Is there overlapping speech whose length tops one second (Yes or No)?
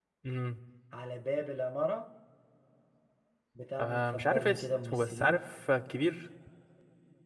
Yes